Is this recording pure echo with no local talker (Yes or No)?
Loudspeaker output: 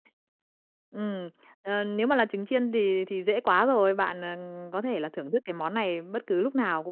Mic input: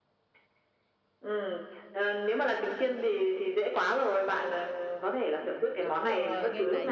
No